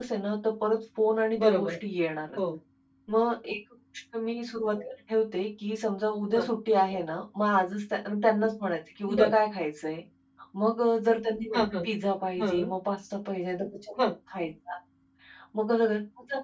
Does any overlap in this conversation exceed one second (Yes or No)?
No